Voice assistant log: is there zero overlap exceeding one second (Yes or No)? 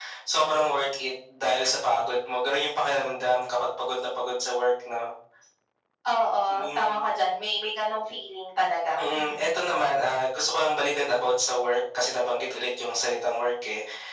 Yes